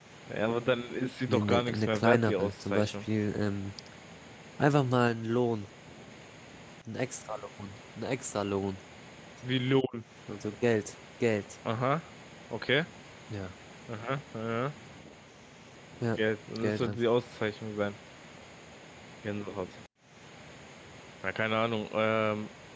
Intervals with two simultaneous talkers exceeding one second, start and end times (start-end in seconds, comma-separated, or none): 1.3-3.1